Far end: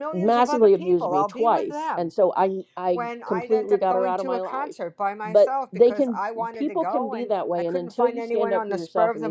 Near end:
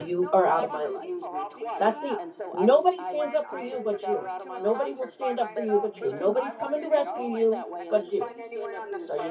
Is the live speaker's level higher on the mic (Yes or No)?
Yes